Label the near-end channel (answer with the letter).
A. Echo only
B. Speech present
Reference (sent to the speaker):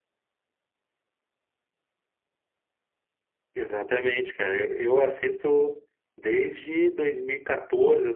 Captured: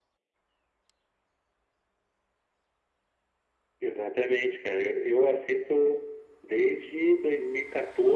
A